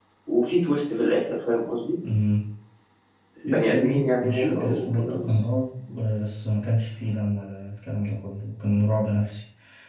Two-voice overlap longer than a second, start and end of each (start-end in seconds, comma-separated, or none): 3.5-5.3